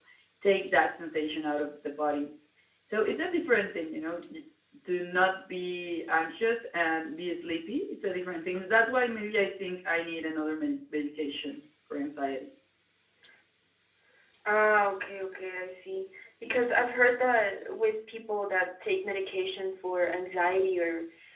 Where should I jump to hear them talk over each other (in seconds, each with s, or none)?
none